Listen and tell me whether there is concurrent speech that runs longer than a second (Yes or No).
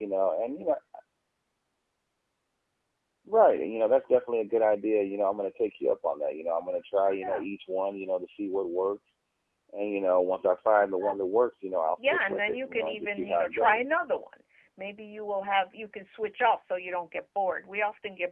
Yes